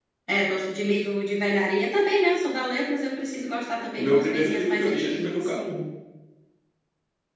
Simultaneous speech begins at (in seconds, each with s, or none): 4.0 s